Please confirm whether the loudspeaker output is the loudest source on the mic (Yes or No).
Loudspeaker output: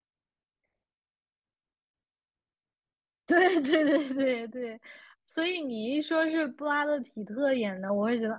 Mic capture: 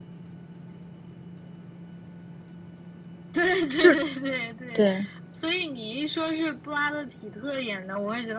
No